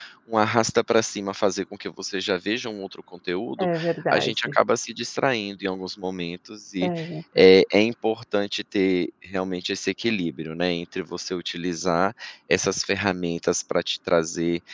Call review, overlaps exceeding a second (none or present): none